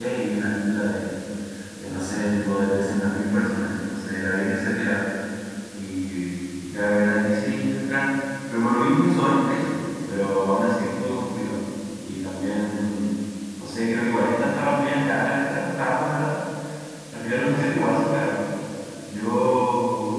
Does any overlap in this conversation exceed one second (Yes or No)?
No